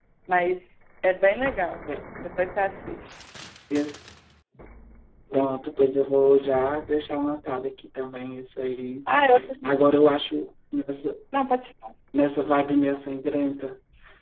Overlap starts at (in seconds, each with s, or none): none